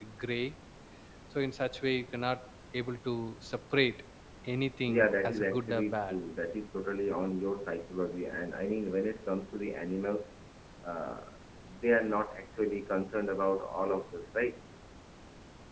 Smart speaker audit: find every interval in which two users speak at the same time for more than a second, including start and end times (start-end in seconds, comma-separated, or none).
4.9-6.2